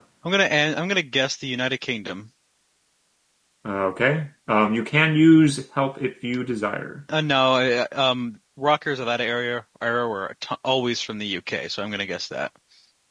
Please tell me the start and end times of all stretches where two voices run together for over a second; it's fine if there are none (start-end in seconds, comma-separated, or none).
none